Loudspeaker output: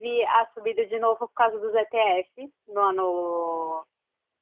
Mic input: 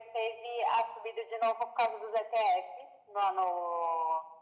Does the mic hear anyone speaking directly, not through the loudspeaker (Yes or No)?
No